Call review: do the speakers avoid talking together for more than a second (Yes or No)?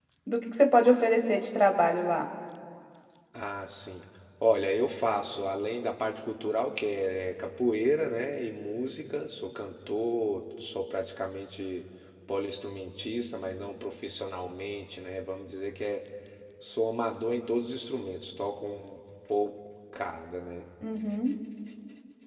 Yes